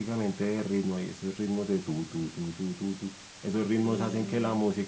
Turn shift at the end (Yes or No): No